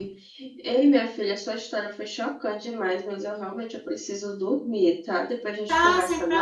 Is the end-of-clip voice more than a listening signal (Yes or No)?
Yes